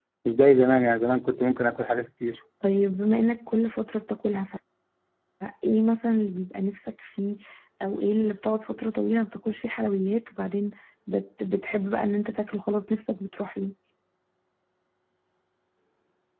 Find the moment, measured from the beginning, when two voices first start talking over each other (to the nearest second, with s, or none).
none